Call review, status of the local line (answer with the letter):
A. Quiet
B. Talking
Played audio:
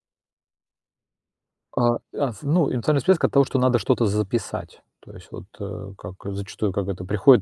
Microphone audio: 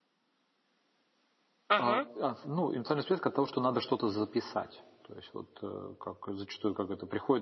B